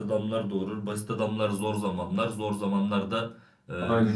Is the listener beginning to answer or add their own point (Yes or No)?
No